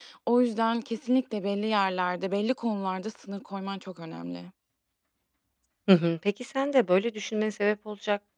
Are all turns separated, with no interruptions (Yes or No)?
Yes